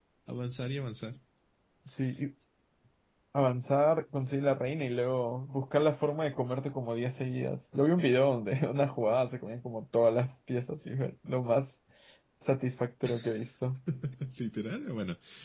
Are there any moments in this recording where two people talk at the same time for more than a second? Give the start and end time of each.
none

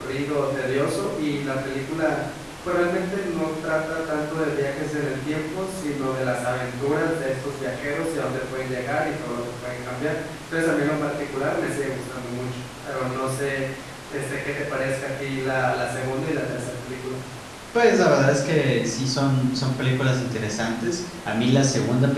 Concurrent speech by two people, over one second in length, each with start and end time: none

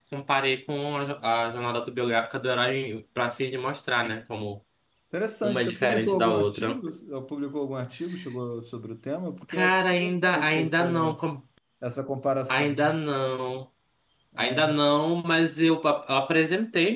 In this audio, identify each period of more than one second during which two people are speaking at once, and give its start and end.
5.4-6.8, 9.5-11.2

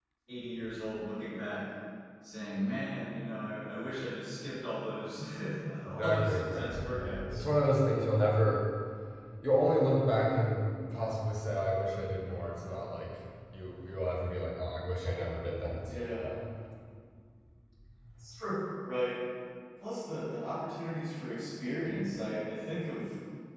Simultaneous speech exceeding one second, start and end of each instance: 5.9-7.4

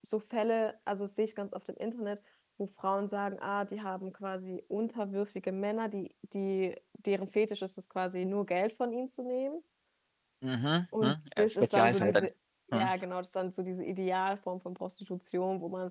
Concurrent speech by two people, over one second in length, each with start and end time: 11.0-12.3

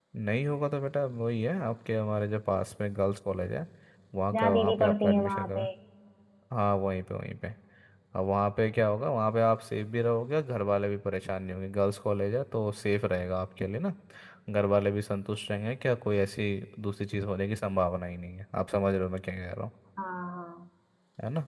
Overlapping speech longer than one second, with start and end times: 4.3-5.7

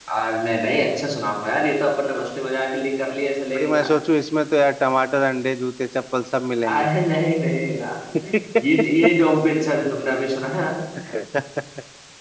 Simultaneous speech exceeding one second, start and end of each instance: none

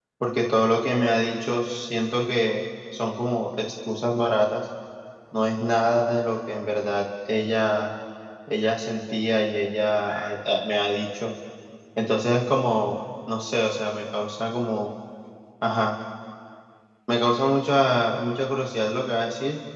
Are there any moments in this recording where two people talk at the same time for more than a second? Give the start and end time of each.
none

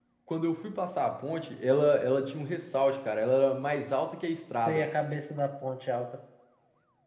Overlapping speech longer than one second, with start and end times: none

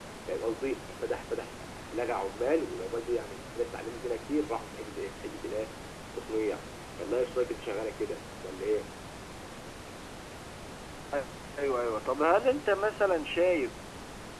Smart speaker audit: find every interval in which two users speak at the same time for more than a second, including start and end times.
none

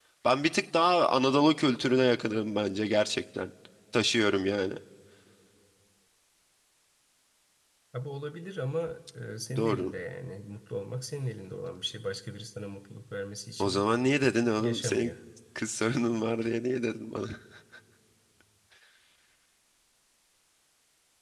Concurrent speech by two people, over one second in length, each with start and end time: none

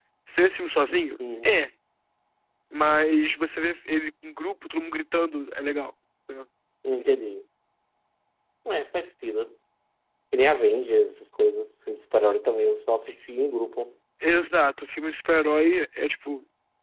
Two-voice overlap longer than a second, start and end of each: none

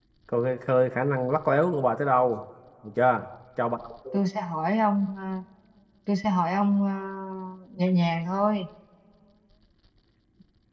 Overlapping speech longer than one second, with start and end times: none

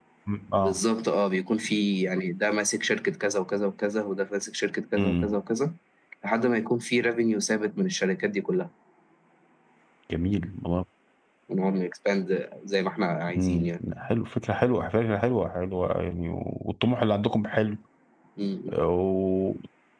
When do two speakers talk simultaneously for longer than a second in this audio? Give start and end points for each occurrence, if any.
none

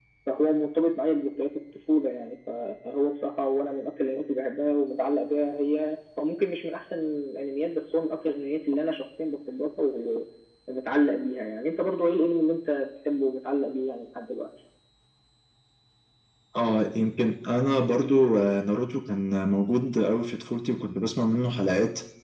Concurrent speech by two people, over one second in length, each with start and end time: none

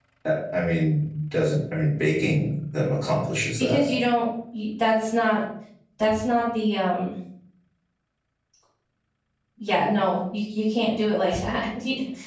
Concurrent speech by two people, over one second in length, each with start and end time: none

